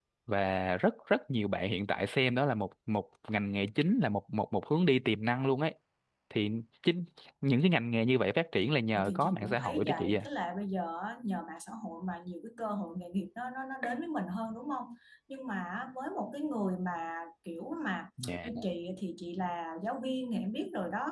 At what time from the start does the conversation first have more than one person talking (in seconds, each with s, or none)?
9.0 s